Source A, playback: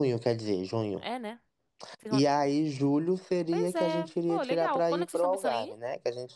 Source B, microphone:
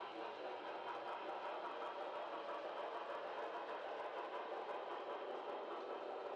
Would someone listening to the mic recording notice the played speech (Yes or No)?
No